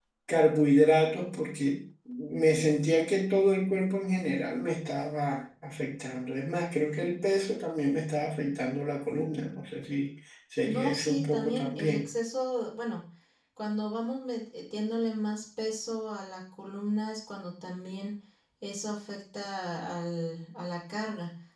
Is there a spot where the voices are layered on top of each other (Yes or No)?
Yes